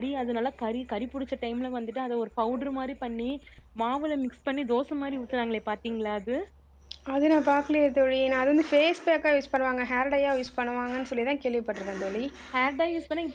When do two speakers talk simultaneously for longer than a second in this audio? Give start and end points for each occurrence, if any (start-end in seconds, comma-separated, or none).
none